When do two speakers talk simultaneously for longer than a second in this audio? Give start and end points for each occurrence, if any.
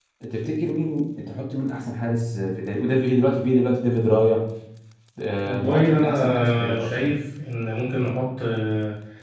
5.4-7.1

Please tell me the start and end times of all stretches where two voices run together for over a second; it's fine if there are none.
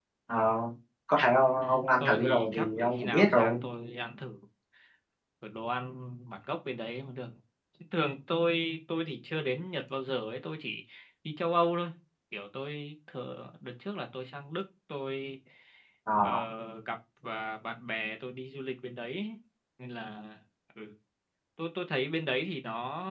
1.6-3.6

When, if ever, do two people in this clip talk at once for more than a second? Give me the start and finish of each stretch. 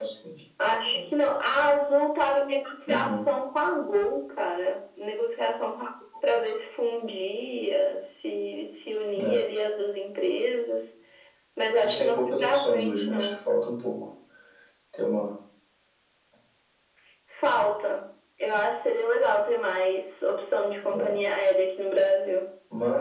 11.8-13.5

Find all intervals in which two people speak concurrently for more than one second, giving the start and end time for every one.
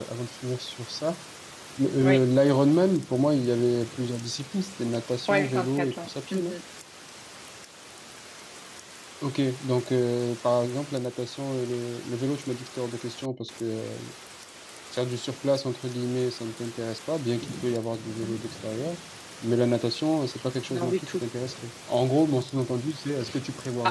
5.3-6.6

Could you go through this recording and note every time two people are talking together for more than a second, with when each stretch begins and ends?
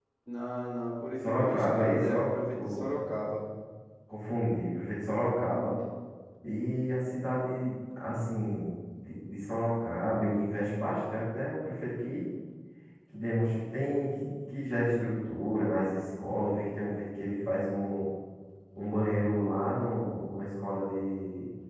1.2-2.9

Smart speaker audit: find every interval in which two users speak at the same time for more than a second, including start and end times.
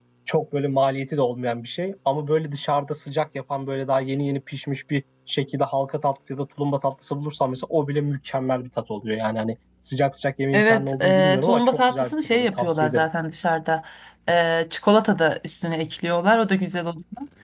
10.5-13.1

